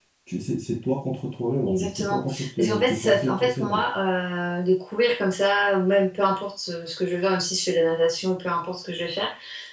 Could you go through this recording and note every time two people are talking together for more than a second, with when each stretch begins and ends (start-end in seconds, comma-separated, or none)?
1.6-3.8